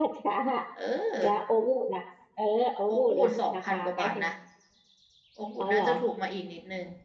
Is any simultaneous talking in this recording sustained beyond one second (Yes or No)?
Yes